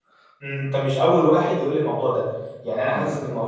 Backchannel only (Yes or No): Yes